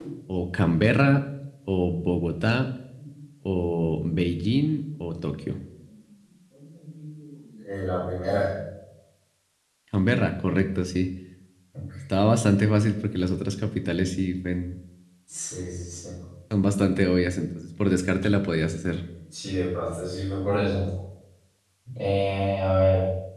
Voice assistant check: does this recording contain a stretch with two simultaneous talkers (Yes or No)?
No